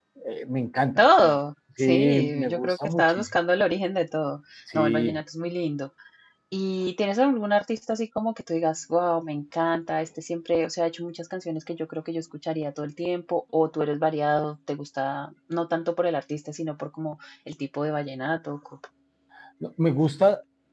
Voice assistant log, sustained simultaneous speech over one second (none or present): present